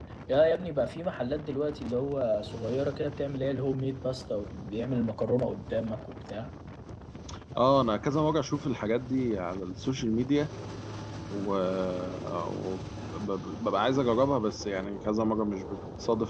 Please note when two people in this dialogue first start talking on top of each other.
none

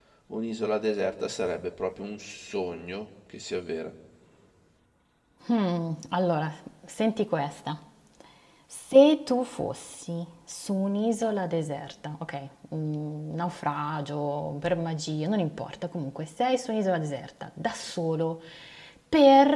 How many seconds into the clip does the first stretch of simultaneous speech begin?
none

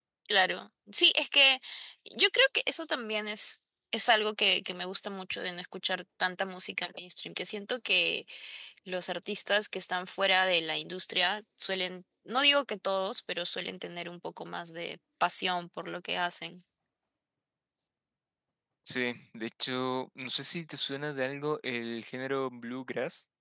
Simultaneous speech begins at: none

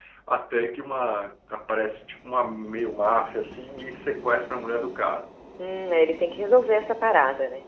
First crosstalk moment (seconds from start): none

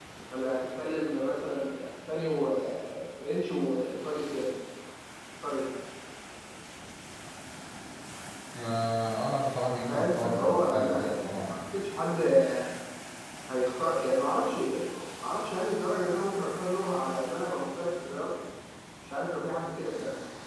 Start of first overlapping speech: 9.9 s

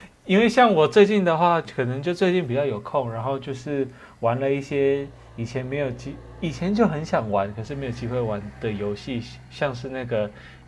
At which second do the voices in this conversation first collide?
none

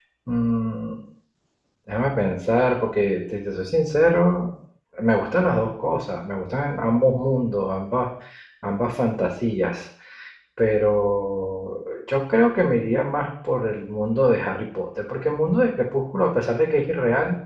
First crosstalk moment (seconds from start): none

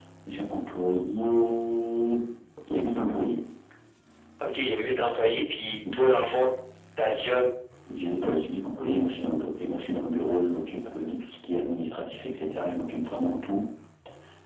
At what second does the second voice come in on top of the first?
none

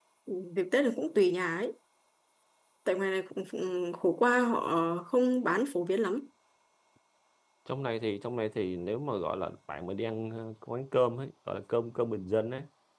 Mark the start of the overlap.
none

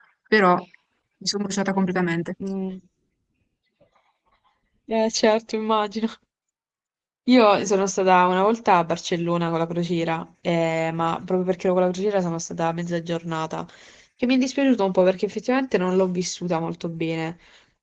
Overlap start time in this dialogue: none

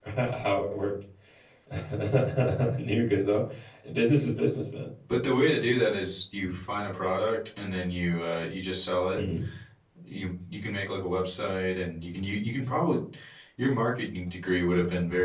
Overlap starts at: none

